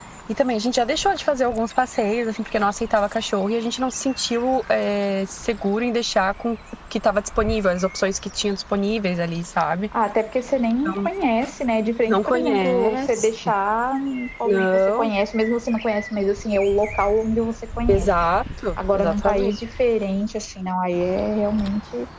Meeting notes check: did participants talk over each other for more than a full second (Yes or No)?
Yes